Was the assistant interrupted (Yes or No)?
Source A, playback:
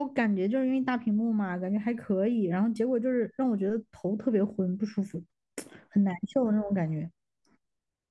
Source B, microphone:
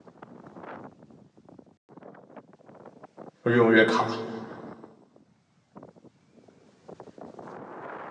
Yes